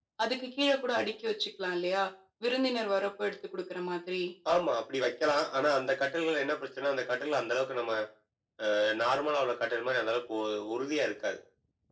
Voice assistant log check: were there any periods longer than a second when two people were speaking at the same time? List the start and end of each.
none

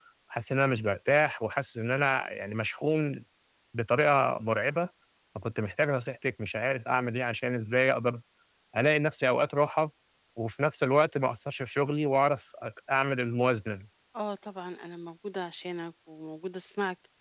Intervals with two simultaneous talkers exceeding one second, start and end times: none

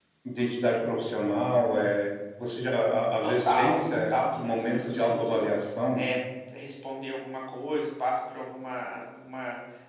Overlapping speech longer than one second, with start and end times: 3.2-5.5

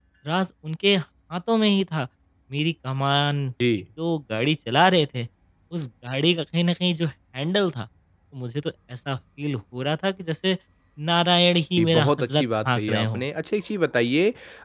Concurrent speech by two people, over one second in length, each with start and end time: 11.8-13.2

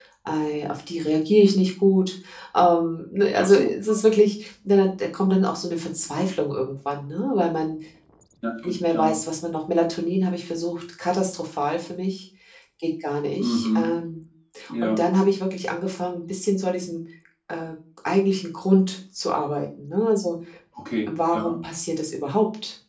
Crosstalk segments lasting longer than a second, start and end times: none

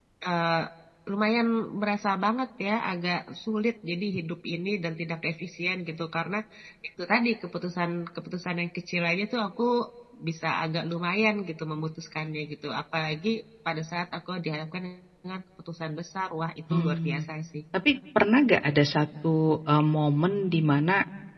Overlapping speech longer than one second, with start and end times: none

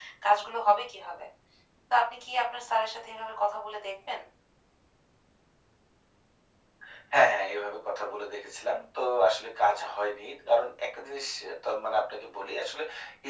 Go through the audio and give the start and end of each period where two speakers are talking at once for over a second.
none

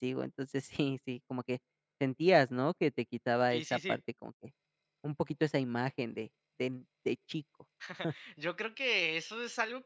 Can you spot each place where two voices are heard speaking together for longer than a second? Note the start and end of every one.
none

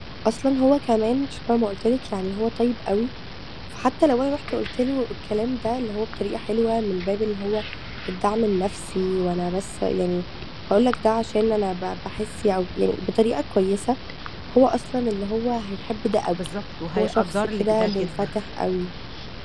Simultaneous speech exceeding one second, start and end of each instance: 17.0-18.3

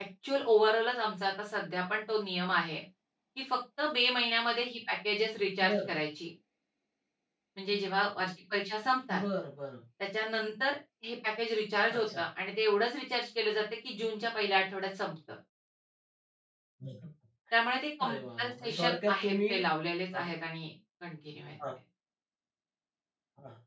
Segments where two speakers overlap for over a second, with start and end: 18.1-19.5

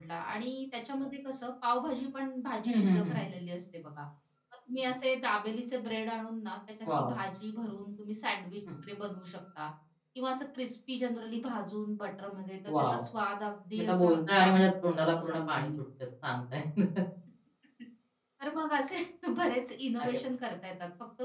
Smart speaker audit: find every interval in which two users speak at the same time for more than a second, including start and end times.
13.8-15.7

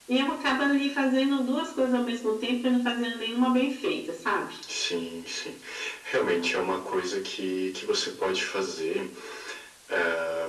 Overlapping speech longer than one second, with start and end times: none

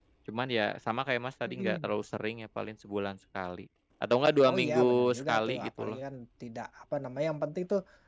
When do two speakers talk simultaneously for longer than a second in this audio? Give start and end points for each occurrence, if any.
4.5-6.0

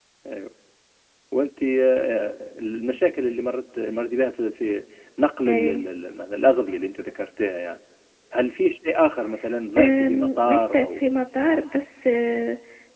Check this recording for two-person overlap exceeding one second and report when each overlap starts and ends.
9.8-11.0

